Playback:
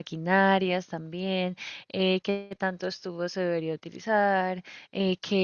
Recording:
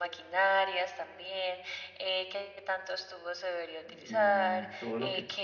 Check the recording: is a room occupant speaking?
Yes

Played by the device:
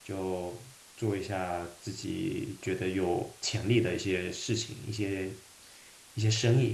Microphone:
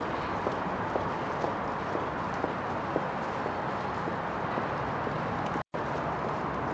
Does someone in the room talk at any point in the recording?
No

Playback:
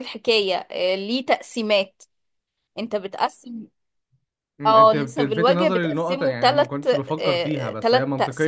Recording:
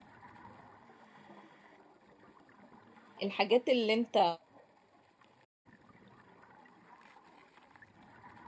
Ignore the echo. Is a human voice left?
Yes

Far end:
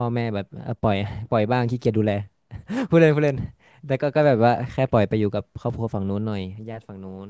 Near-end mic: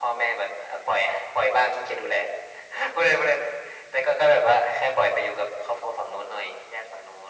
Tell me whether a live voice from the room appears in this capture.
No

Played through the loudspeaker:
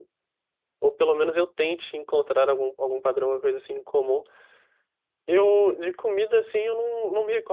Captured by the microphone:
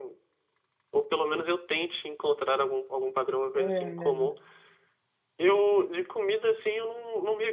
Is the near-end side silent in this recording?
No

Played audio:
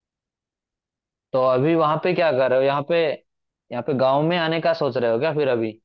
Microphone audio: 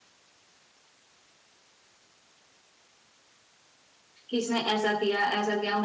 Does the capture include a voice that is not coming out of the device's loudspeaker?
Yes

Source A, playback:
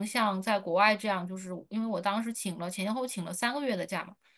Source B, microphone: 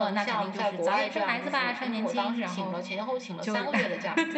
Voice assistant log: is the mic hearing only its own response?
No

